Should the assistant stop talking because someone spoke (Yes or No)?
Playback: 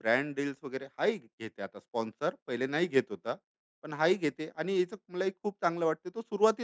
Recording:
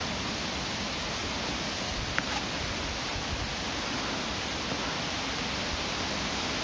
No